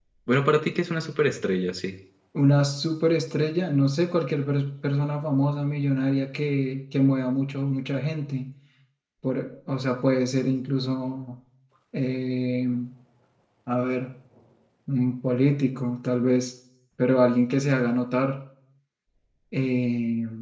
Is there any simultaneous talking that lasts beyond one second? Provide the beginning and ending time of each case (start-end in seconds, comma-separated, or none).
none